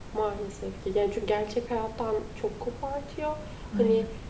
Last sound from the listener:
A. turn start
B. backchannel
B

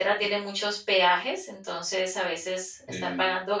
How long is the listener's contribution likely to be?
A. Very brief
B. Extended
A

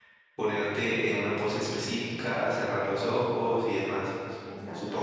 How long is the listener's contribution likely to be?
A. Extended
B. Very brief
A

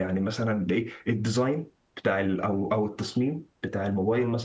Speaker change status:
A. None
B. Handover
A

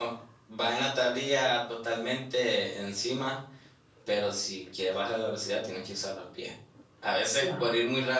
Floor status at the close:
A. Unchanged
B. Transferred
A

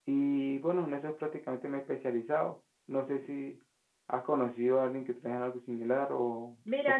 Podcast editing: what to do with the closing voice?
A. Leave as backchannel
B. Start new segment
B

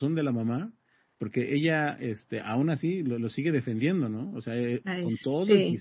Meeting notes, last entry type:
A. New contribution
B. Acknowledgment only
B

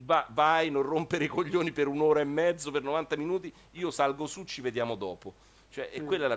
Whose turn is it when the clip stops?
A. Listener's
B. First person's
B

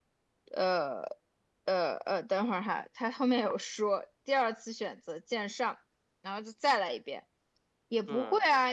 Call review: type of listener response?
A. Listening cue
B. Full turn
A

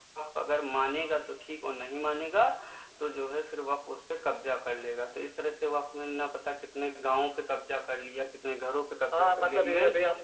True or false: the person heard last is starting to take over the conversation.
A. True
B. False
A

